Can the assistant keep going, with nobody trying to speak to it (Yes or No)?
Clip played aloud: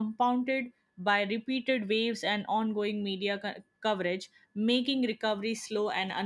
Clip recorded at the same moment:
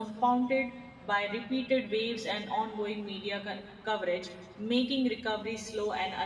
Yes